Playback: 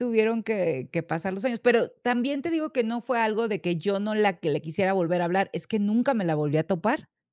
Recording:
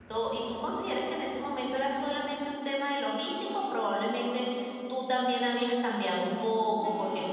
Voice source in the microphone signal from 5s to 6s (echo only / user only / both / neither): user only